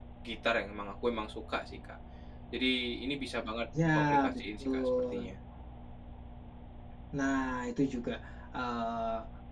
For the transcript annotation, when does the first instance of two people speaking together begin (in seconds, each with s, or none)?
3.7 s